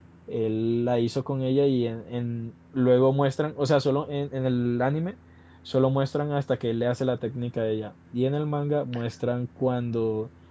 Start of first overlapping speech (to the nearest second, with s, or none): none